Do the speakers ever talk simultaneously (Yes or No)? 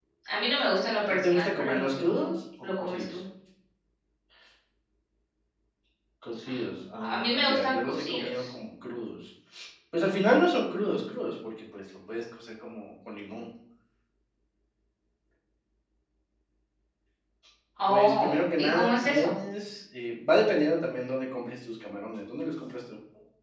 Yes